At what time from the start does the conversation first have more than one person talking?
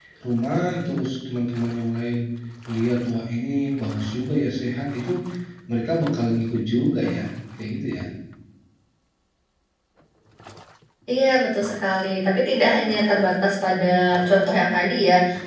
none

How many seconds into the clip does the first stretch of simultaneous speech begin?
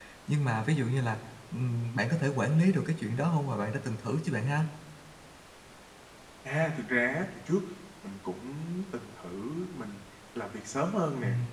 none

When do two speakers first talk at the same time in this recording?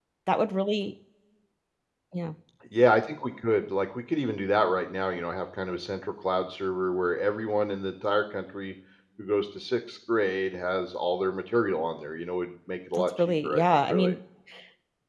13 s

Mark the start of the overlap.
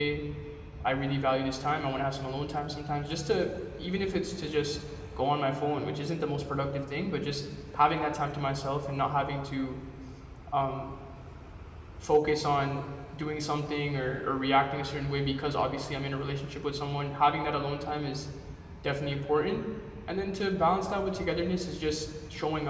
none

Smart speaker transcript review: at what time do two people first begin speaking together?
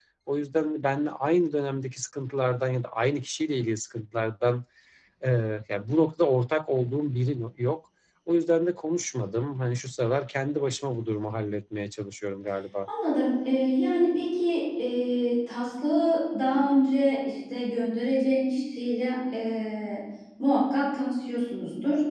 none

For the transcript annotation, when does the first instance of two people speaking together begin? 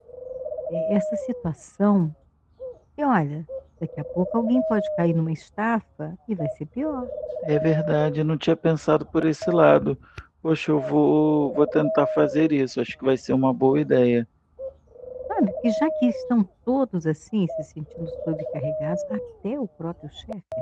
none

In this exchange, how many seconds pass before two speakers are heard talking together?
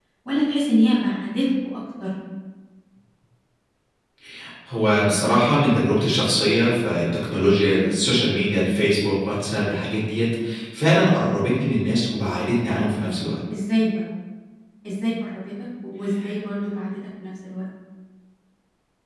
none

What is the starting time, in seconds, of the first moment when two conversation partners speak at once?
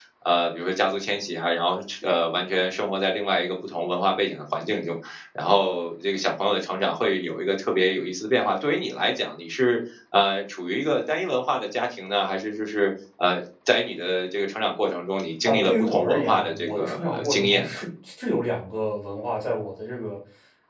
15 s

